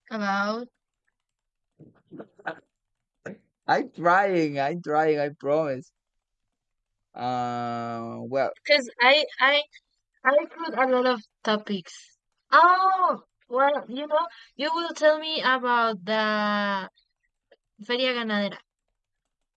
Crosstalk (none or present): none